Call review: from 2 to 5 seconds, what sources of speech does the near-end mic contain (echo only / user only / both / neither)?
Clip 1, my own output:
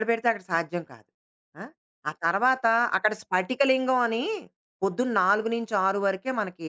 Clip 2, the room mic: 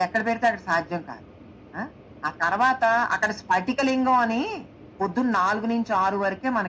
echo only